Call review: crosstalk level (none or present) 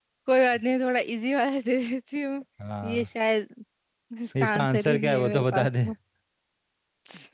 present